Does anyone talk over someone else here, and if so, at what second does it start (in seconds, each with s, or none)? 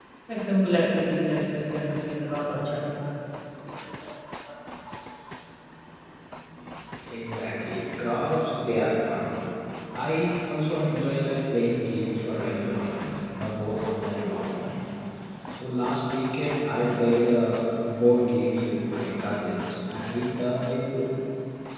none